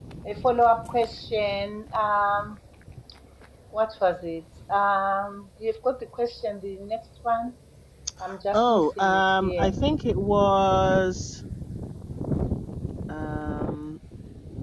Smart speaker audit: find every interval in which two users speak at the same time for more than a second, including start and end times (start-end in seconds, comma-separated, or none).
8.5-9.7